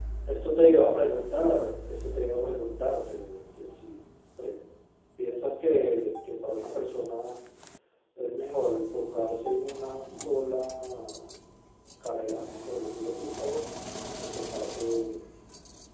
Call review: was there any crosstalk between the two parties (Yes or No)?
No